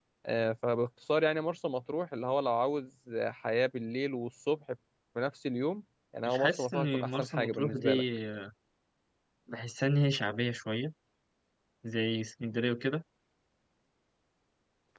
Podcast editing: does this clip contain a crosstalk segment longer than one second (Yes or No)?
Yes